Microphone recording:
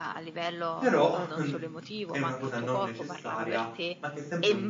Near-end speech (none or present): present